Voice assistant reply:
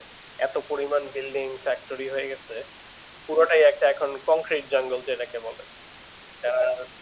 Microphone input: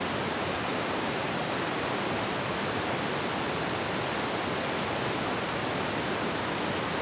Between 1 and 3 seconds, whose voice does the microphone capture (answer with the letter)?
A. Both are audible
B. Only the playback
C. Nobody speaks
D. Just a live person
C